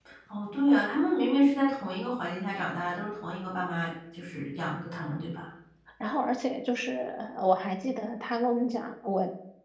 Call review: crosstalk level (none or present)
none